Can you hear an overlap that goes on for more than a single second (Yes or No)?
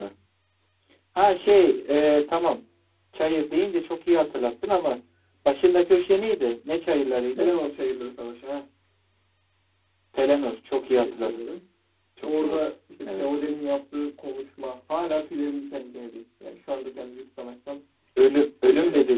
No